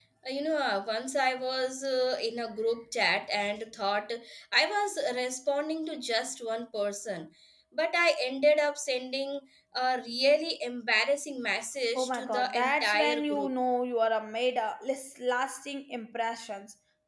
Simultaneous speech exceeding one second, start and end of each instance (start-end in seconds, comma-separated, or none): 12.0-13.5